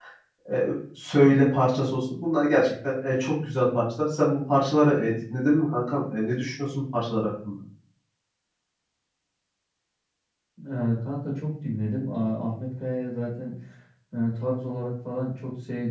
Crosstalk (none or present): none